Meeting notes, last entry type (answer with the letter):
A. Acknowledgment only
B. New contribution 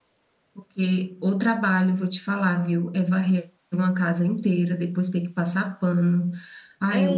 B